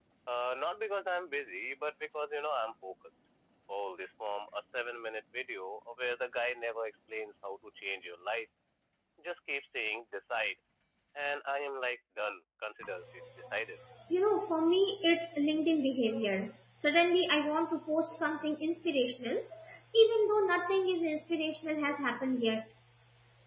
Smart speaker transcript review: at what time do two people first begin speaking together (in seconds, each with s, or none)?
none